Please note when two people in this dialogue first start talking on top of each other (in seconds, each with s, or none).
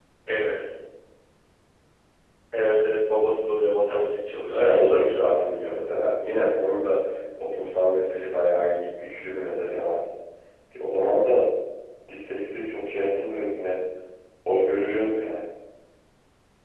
4.5 s